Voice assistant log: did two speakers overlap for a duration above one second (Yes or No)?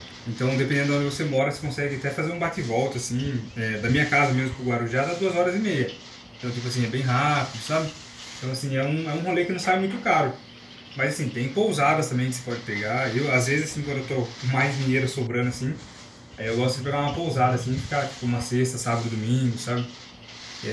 No